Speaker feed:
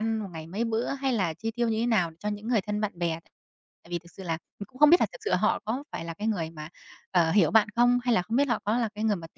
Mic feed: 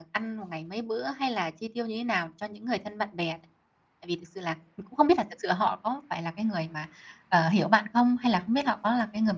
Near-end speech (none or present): none